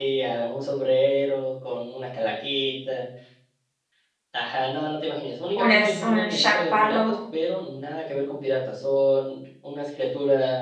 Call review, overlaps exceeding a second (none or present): present